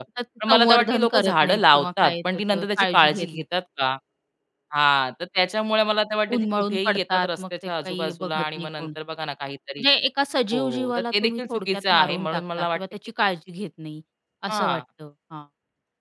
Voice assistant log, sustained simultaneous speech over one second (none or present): present